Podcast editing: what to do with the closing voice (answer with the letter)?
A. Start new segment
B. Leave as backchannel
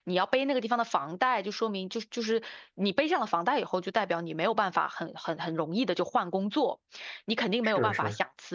B